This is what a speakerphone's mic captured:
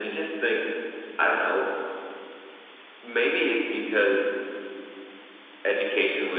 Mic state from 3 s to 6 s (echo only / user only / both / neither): echo only